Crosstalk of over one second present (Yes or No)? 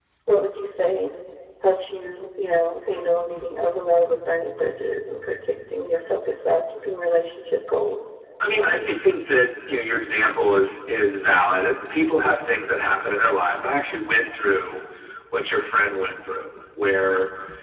No